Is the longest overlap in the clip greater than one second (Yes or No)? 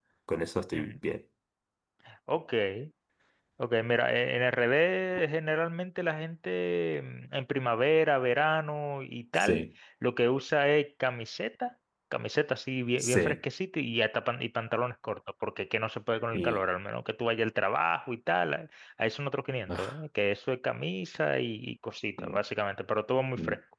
No